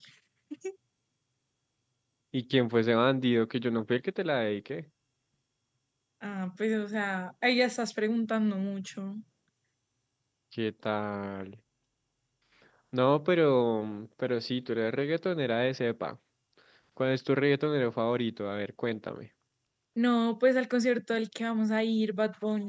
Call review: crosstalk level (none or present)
none